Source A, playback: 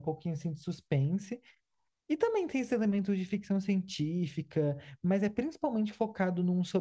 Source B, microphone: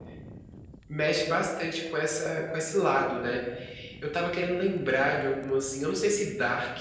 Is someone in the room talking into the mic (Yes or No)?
Yes